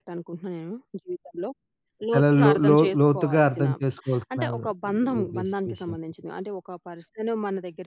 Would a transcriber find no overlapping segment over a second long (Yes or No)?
No